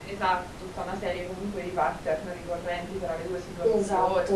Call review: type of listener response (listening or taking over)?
listening